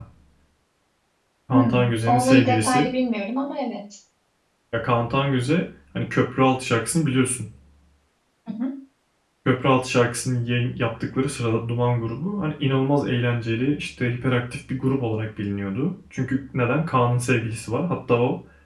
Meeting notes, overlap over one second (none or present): present